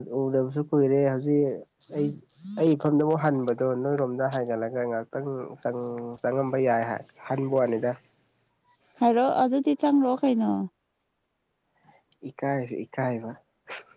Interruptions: none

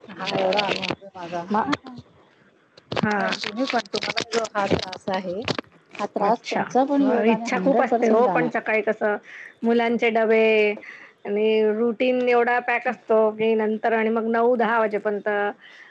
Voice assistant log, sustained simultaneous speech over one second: present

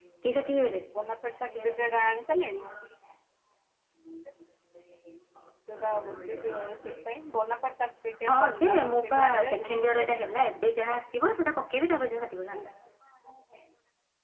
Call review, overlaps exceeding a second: present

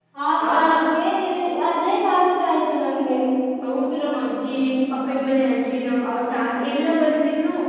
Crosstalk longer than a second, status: none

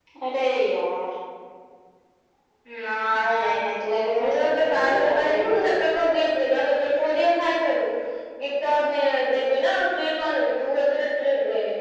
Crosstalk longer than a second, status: present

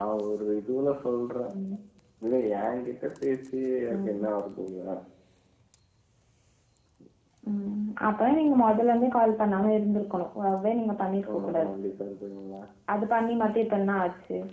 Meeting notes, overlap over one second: none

